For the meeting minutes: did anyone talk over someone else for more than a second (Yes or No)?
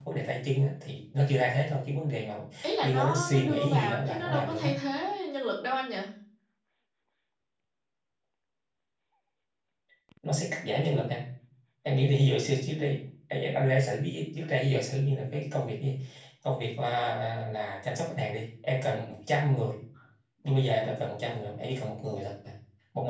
Yes